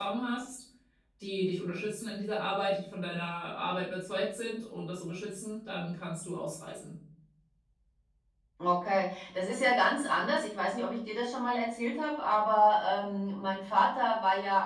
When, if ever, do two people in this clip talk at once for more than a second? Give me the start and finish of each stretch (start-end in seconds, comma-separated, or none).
none